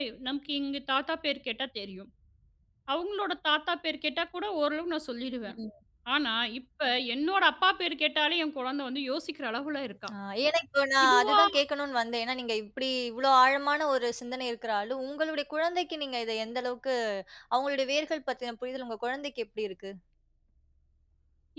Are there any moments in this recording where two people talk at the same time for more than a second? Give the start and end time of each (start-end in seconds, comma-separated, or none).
none